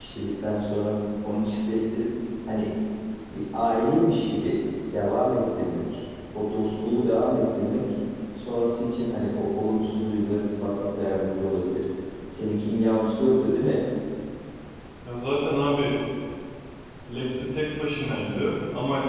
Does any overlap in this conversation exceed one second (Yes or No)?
No